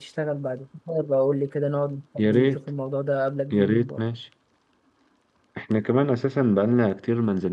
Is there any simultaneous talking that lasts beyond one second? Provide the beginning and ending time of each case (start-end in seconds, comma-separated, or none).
none